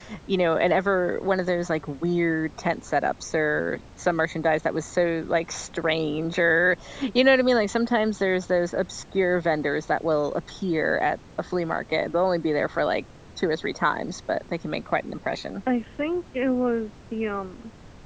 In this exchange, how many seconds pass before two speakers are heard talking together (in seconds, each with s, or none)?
none